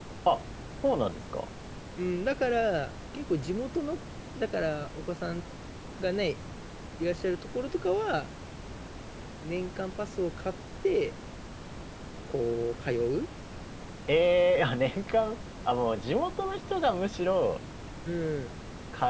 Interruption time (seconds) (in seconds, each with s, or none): none